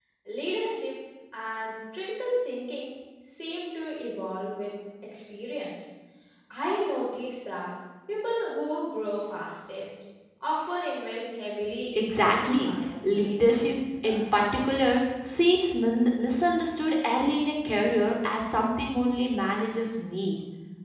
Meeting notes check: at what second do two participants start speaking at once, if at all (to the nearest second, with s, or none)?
12 s